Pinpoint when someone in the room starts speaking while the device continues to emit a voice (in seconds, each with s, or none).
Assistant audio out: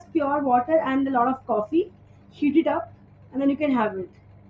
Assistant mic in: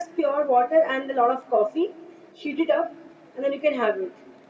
none